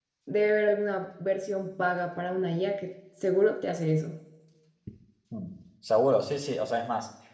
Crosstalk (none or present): none